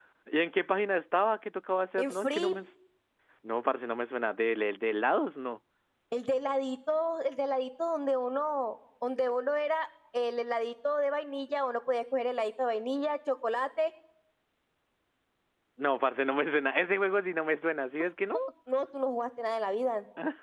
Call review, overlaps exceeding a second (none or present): none